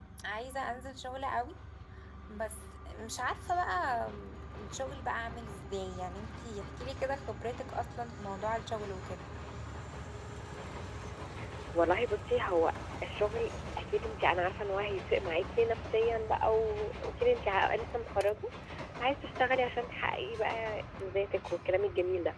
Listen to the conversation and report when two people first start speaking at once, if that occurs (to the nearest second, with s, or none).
none